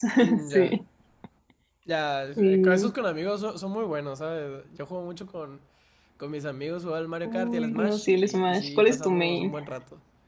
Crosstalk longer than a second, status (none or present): present